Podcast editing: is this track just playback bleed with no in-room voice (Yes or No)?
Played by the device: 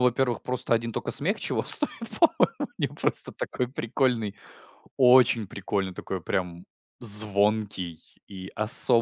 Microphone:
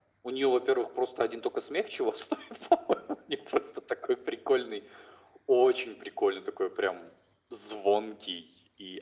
Yes